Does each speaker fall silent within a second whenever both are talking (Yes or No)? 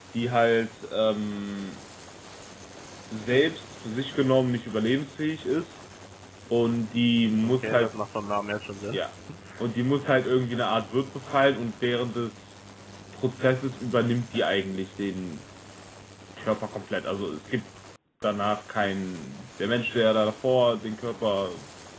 Yes